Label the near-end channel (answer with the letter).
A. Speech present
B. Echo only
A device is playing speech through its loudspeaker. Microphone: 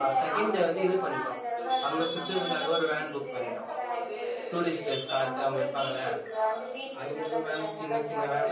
A